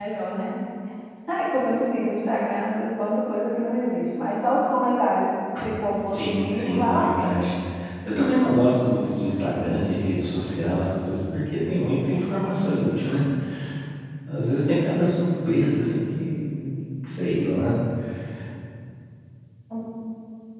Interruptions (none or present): present